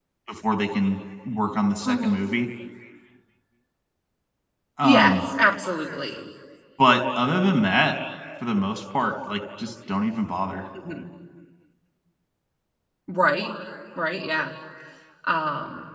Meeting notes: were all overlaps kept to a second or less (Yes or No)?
Yes